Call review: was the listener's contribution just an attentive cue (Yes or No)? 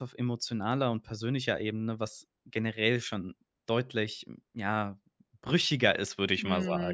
No